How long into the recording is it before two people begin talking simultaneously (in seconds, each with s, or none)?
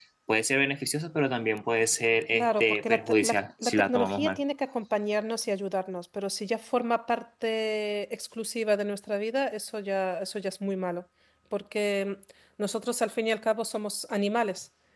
2.3 s